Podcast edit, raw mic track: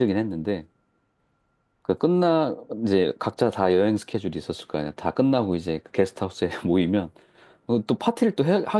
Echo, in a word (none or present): none